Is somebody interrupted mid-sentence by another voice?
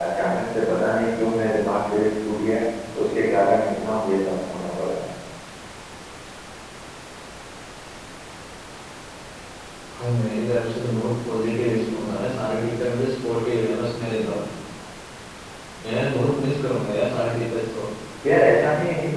No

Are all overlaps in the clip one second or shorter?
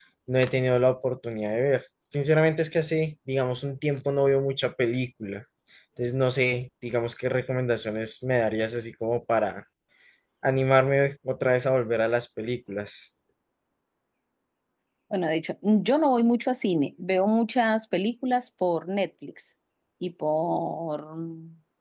Yes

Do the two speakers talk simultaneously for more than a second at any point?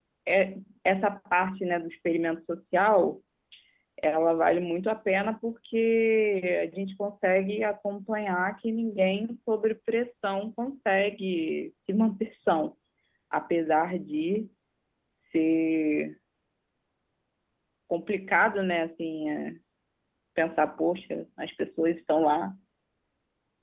No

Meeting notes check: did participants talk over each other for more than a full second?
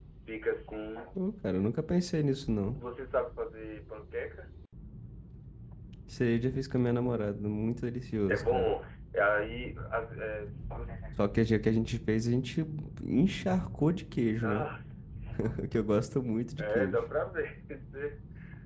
No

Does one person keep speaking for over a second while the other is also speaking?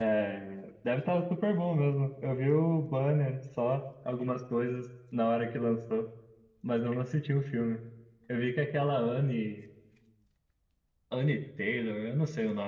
No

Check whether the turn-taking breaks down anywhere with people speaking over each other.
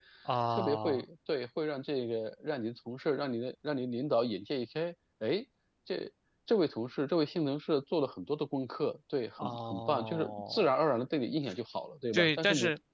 Yes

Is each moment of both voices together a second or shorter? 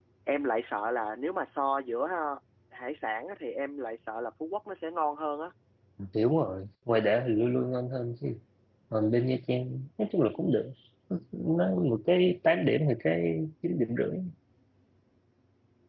Yes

